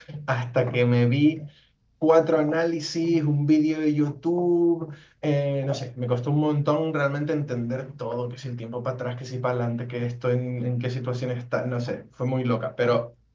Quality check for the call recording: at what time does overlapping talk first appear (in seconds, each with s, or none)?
none